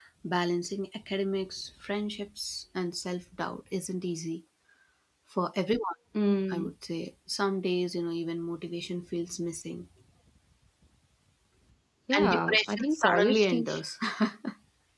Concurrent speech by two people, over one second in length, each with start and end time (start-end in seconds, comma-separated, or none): 12.2-13.8